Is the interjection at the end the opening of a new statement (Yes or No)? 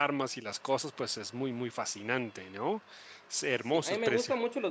Yes